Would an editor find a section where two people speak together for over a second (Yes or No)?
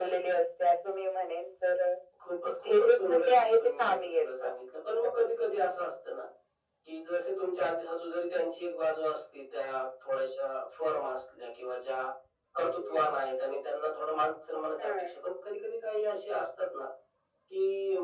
Yes